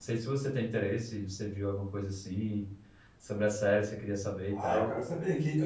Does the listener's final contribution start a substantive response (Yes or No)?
Yes